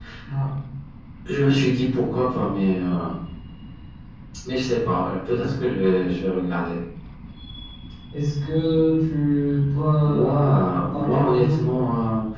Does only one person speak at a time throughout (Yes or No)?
No